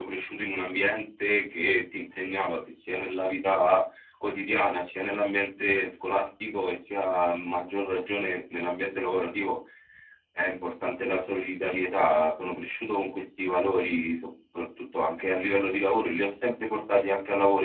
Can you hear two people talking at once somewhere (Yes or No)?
No